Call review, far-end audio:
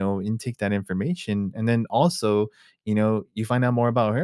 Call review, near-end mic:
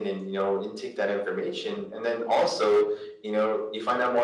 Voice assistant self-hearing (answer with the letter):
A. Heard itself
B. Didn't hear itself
A